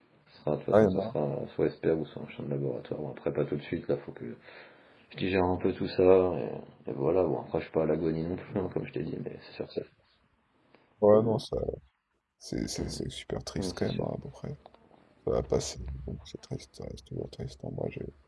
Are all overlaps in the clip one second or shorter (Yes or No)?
Yes